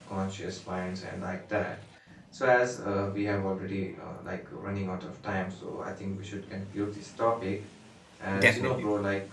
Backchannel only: Yes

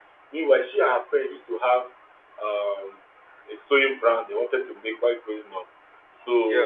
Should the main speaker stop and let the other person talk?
No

